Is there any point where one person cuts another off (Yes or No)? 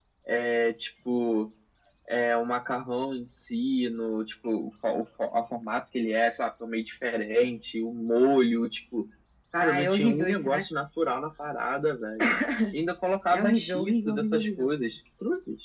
Yes